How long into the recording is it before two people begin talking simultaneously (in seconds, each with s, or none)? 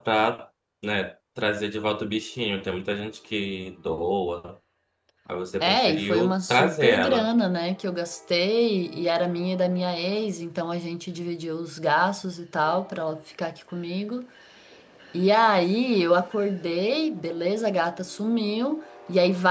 5.6 s